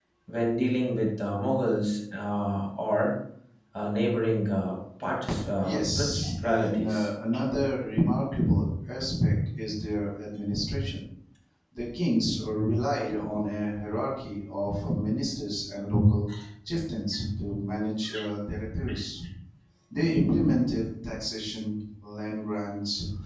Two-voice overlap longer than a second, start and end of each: 5.6-7.1

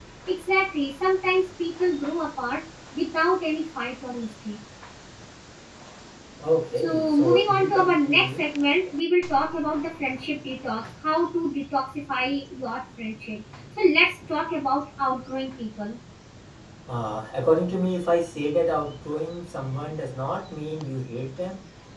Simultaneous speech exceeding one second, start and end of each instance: 6.8-8.4

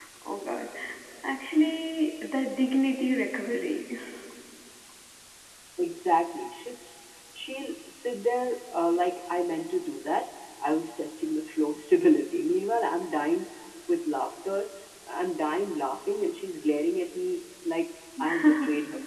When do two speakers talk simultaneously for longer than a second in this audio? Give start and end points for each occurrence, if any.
none

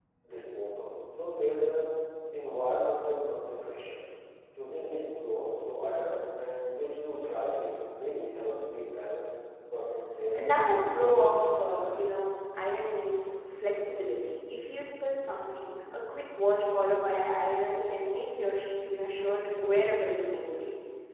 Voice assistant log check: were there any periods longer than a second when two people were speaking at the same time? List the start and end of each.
10.4-11.9

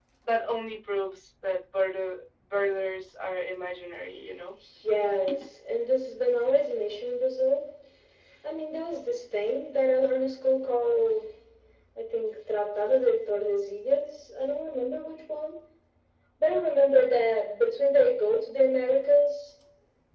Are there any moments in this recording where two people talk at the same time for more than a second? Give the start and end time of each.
none

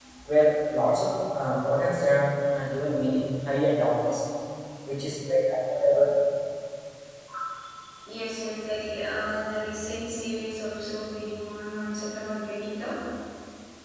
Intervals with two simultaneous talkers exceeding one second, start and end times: none

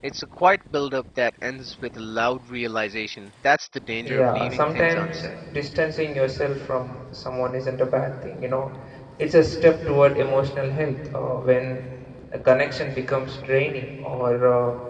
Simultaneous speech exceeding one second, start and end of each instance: 4.0-5.3

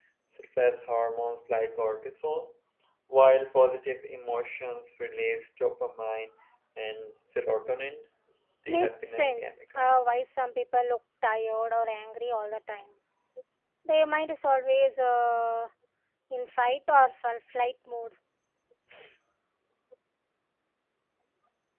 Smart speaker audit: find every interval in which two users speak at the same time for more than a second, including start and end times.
8.7-10.0

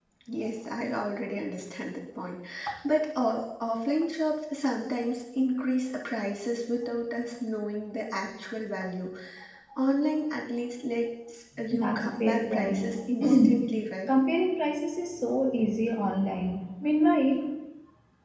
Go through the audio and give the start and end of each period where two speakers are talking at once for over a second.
11.7-12.9

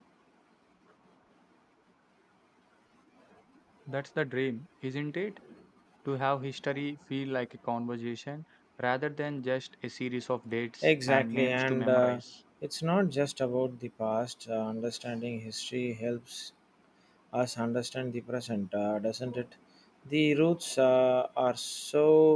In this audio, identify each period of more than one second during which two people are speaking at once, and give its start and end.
10.8-12.2

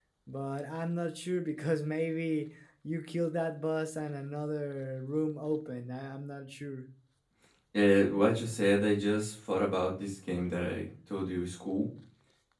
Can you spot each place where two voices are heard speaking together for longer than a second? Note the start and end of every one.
none

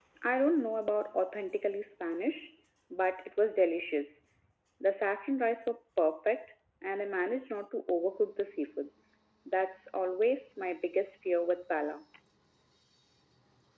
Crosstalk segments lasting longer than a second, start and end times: none

